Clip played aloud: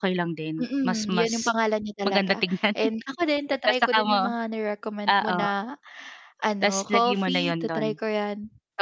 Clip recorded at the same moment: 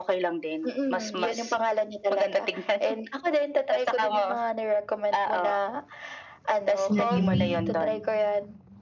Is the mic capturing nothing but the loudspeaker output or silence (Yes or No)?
No